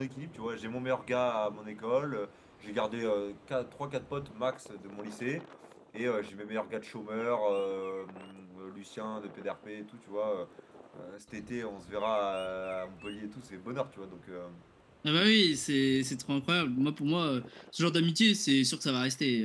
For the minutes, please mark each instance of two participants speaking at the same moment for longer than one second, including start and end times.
none

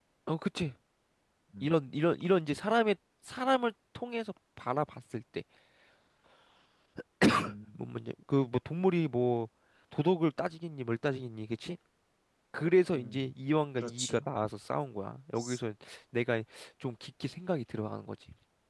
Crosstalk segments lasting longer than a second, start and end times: none

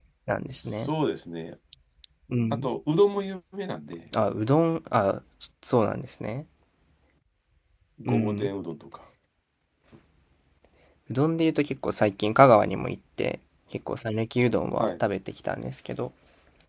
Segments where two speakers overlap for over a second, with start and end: none

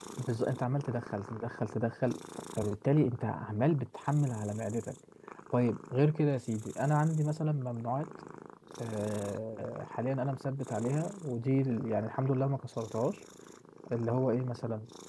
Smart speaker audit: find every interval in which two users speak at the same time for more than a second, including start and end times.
none

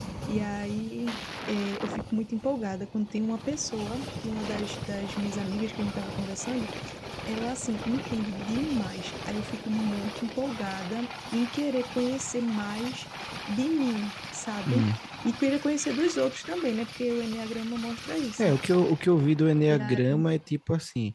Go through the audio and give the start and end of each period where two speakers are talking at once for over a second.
none

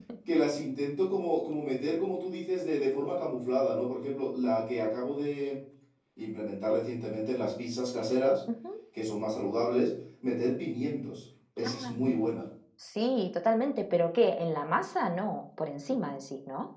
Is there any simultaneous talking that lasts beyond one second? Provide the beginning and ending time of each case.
none

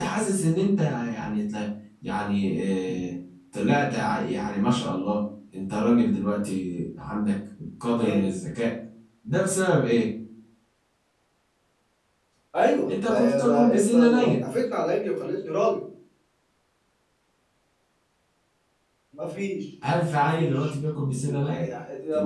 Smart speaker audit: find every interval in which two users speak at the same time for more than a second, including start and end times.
12.9-14.4

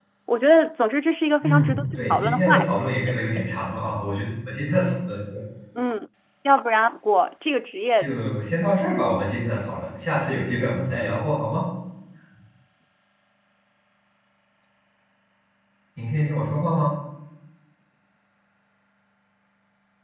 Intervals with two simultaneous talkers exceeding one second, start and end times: 1.4-2.7

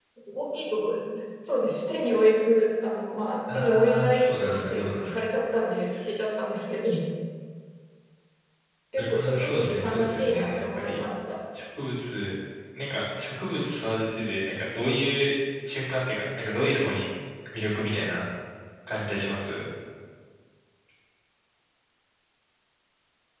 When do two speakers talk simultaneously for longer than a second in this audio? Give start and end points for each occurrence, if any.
3.5-5.1, 9.0-11.0

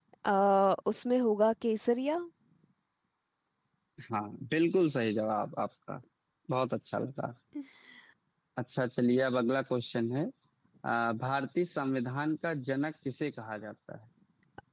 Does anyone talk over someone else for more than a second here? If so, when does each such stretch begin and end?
none

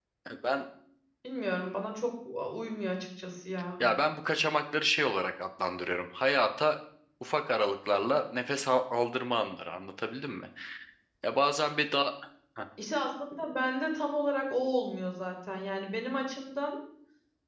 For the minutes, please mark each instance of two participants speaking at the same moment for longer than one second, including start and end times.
none

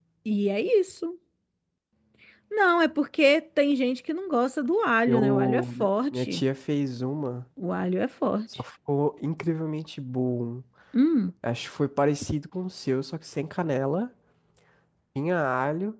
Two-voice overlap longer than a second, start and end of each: 5.1-6.4

